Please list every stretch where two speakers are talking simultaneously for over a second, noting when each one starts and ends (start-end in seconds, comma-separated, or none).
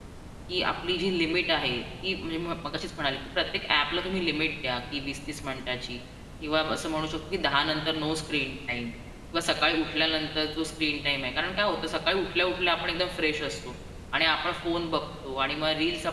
none